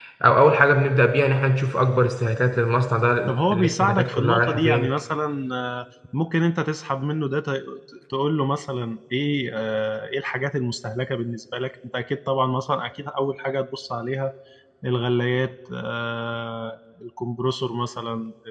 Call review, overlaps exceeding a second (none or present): present